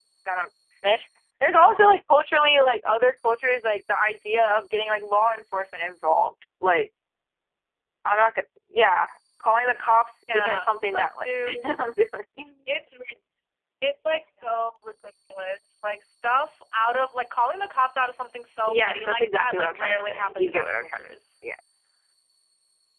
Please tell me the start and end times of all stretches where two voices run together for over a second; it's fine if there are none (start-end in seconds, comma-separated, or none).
10.3-11.6, 18.6-21.1